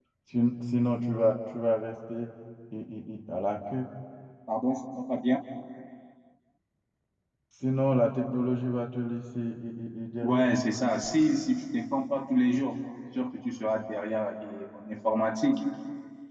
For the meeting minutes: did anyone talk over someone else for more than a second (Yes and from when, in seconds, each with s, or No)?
No